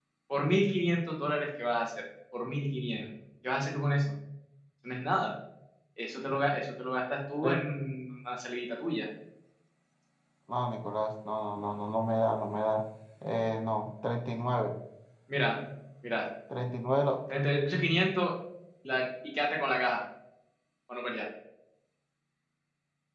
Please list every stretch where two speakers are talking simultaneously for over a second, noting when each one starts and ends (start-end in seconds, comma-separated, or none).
none